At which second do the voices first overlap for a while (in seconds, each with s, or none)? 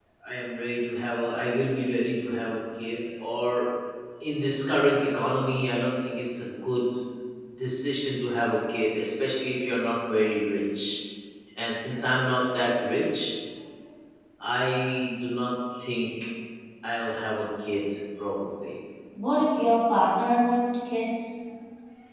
none